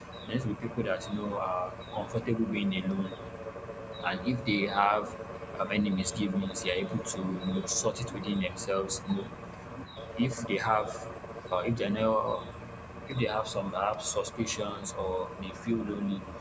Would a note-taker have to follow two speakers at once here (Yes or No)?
No